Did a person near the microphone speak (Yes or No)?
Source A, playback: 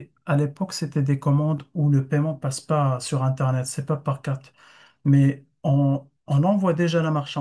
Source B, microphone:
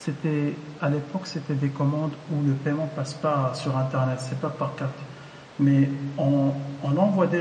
No